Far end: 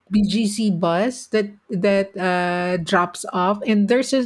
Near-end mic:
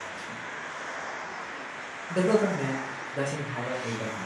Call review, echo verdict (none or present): none